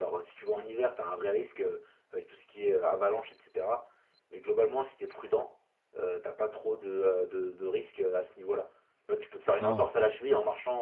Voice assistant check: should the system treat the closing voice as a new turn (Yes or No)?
No